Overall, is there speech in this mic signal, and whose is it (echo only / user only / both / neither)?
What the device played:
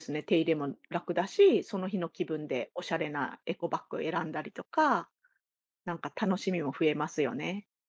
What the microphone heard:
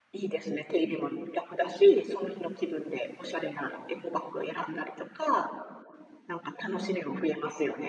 echo only